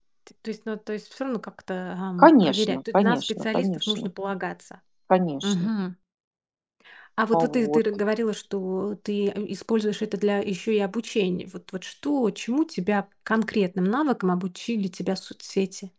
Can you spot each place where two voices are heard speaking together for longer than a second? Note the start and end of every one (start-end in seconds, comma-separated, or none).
2.2-4.1